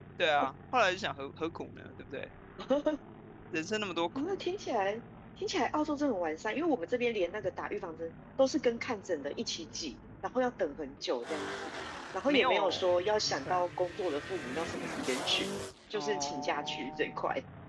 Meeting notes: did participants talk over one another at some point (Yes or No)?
Yes